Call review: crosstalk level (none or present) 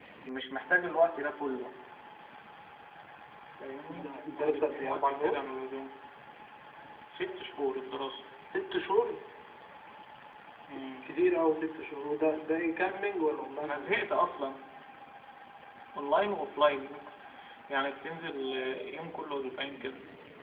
present